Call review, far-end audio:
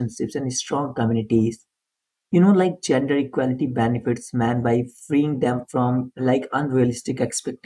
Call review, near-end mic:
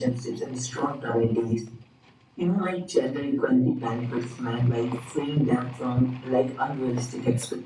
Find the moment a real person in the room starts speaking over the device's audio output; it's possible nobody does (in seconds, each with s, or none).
none